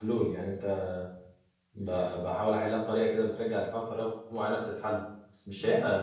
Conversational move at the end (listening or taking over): taking over